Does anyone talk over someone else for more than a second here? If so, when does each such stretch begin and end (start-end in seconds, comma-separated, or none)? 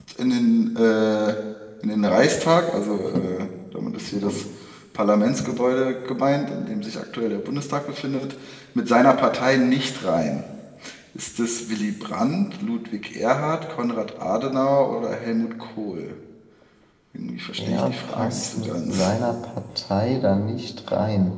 17.6-19.1